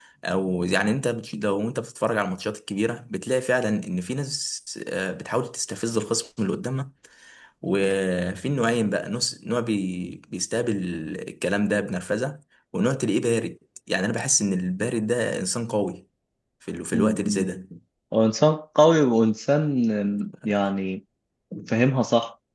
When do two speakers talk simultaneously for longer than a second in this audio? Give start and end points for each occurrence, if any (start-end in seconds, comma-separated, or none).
none